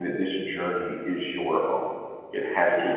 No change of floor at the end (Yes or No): Yes